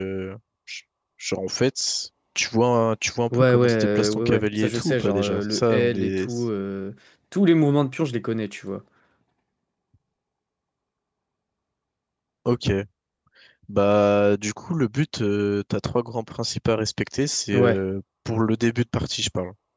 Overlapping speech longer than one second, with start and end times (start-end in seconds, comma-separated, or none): 3.3-6.4